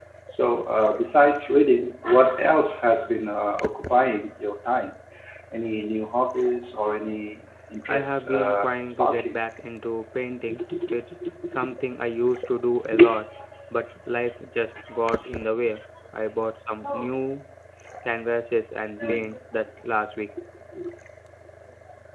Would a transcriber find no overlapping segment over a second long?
No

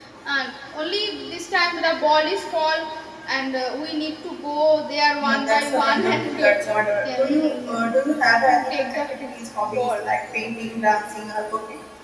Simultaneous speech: Yes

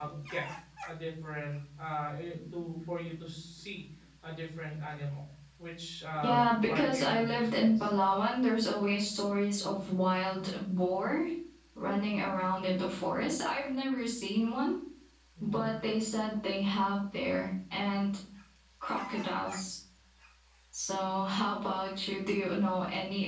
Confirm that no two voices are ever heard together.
No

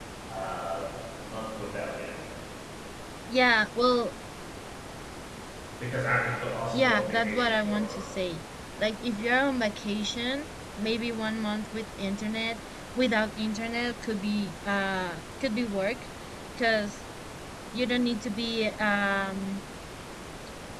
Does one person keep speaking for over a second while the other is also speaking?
Yes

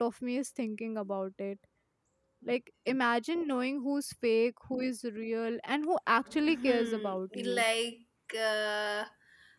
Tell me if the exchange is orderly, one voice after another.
No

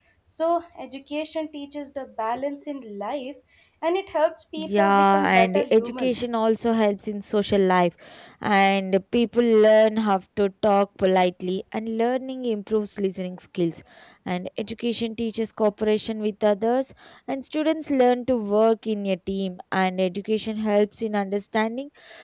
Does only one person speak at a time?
No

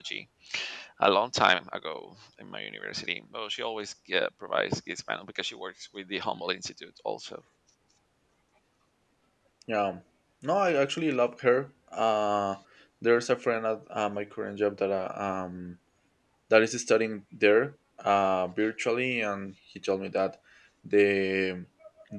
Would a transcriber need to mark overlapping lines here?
No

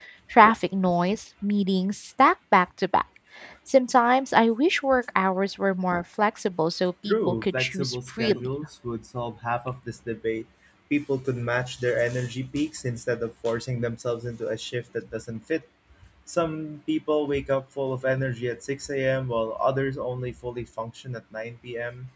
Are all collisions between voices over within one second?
No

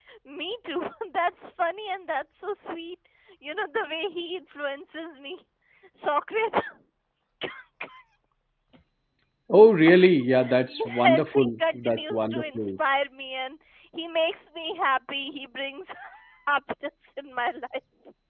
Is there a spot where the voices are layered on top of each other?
Yes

